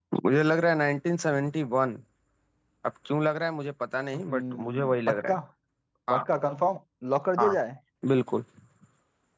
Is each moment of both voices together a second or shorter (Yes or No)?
No